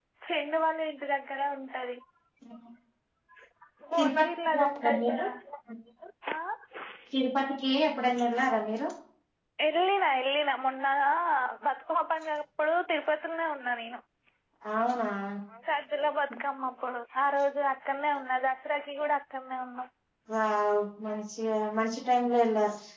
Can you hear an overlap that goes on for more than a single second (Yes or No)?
Yes